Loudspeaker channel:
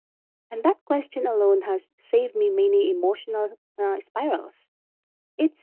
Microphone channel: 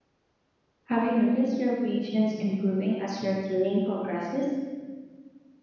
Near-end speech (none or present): present